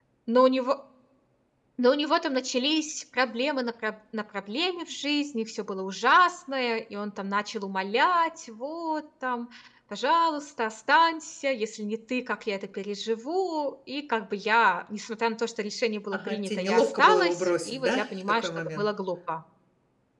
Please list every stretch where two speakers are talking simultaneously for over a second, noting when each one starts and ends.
16.1-18.9

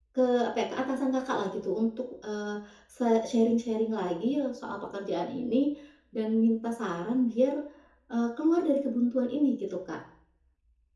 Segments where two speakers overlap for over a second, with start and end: none

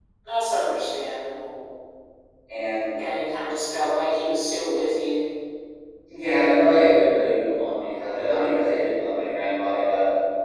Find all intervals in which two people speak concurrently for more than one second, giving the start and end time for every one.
none

